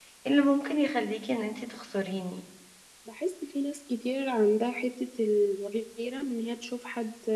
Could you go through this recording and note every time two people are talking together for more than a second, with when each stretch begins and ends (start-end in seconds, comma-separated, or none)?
none